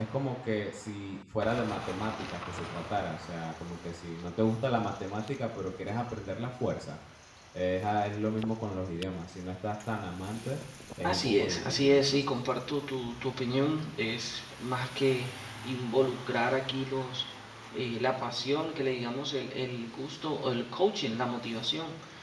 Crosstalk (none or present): present